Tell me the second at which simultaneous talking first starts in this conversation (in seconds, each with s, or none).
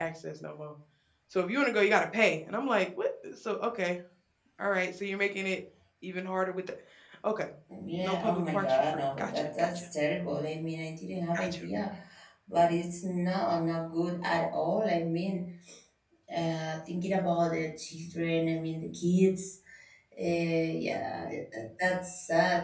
8.0 s